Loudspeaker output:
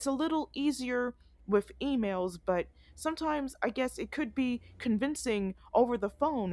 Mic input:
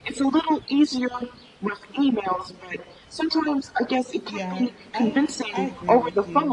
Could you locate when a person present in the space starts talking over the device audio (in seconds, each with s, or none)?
4.3 s